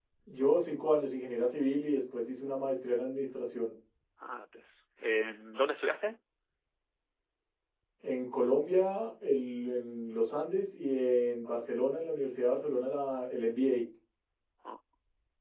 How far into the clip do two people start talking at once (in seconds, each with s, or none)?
none